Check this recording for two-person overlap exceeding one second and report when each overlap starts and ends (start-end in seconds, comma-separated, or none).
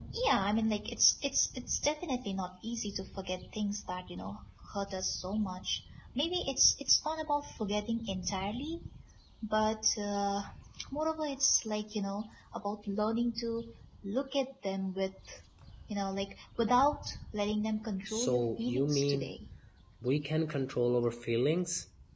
18.1-19.3